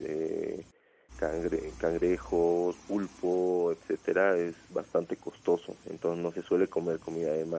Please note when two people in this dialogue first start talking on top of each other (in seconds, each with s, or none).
none